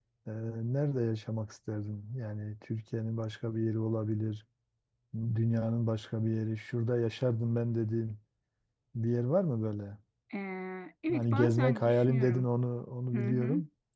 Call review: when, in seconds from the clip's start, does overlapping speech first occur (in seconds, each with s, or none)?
11.1 s